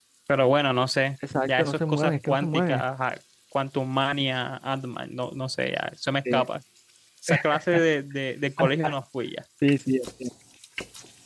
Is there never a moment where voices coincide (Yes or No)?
No